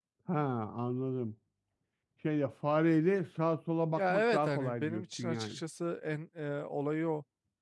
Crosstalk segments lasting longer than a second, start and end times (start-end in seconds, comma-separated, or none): 4.0-5.6